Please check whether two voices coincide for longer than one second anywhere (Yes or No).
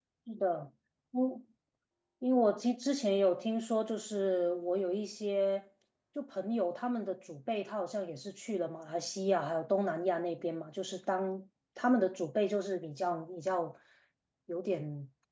No